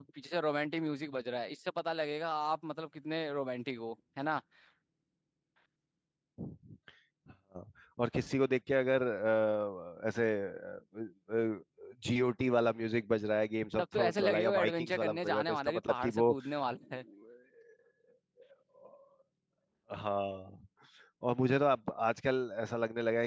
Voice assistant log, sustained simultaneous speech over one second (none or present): present